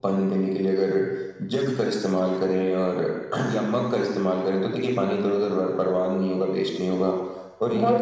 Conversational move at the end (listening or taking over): listening